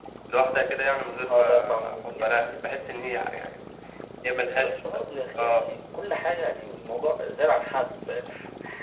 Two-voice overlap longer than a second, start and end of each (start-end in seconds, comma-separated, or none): 1.0-2.6